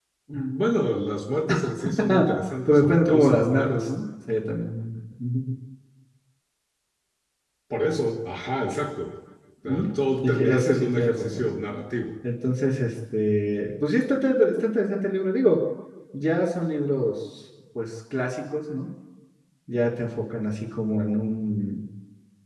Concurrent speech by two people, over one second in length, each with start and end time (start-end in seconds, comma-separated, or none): 2.7-3.9, 10.2-11.5